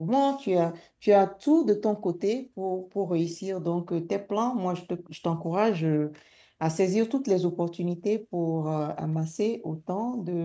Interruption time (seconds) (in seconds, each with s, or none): none